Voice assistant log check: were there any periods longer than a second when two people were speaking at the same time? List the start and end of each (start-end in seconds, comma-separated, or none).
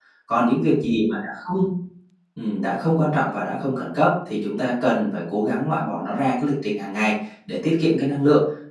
none